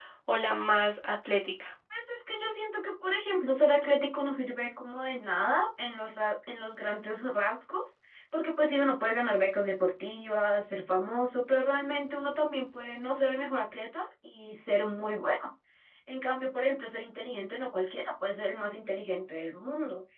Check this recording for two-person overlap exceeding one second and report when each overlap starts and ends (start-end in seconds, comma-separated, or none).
none